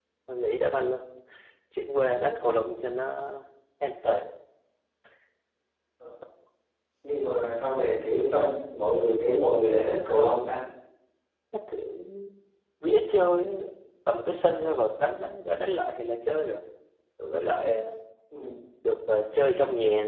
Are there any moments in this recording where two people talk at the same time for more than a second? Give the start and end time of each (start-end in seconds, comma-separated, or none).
none